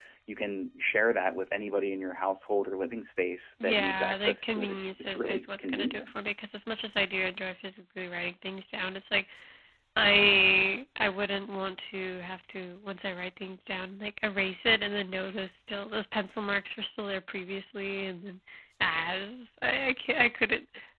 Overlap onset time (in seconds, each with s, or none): 3.6 s